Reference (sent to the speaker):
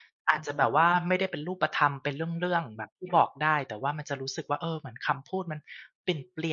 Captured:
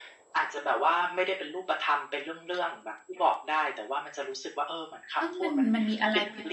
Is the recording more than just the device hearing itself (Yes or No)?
Yes